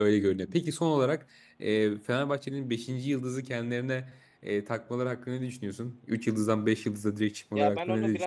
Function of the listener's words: taking over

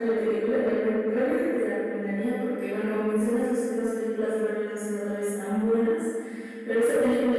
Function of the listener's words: listening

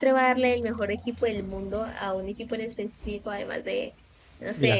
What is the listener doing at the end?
listening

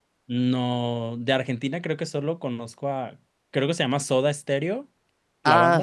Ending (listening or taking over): taking over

